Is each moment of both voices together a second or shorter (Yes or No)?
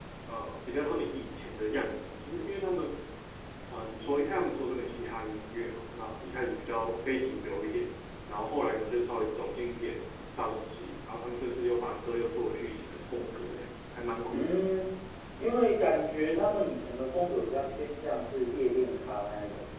Yes